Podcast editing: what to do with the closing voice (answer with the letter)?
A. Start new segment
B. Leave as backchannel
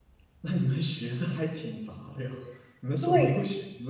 B